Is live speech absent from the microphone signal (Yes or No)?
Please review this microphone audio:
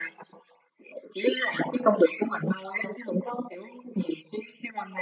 Yes